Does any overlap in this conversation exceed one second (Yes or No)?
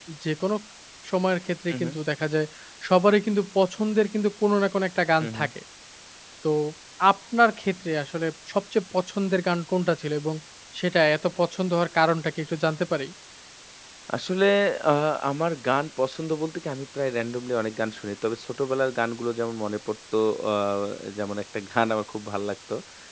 No